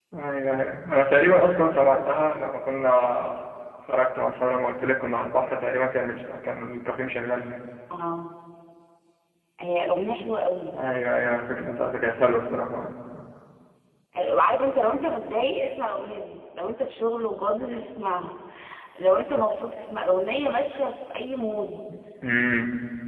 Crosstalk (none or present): none